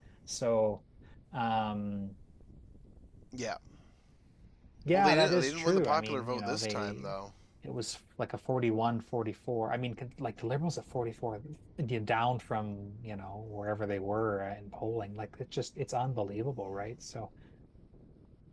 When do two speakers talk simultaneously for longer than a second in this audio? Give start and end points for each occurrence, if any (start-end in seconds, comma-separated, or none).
4.9-7.1